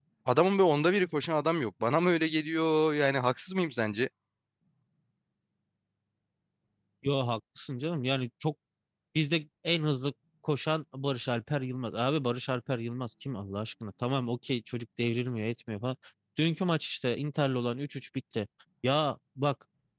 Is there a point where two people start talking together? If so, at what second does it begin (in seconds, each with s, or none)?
none